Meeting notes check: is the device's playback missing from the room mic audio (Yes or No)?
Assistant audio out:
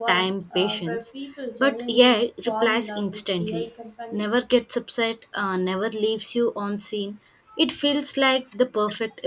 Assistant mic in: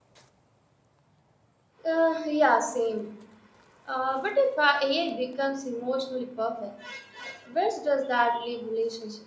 Yes